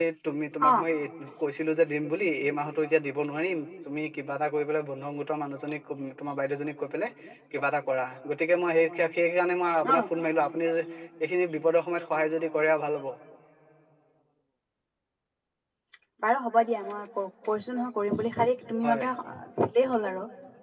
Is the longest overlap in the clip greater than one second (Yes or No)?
No